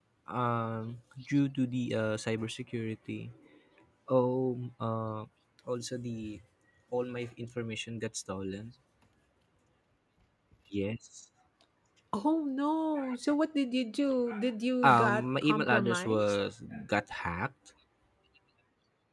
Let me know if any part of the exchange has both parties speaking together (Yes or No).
Yes